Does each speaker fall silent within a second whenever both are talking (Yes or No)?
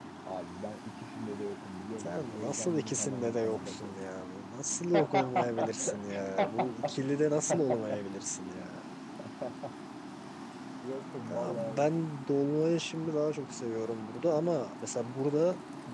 No